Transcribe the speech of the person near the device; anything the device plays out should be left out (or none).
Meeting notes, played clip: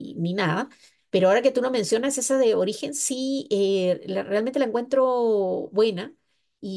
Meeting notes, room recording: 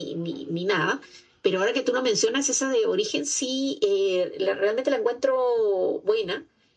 none